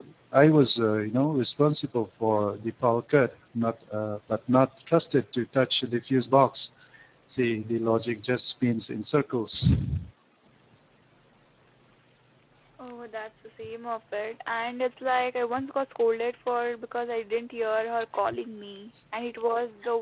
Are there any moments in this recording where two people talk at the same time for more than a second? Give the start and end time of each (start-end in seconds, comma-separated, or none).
none